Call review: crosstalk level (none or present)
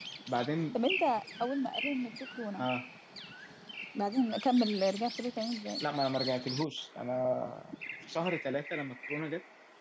none